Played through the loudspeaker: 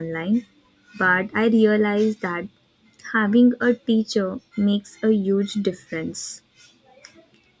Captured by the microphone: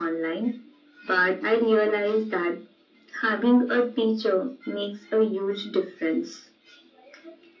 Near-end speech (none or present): none